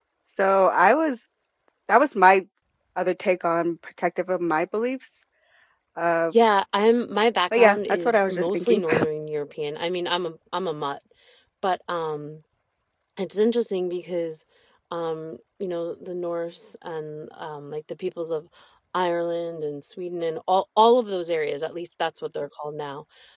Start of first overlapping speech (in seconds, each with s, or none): 7.5 s